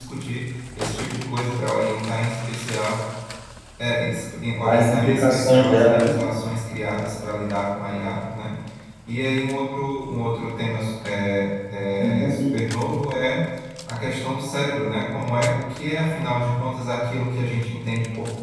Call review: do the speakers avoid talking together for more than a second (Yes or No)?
No